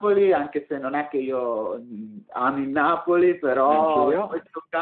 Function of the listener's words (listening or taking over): listening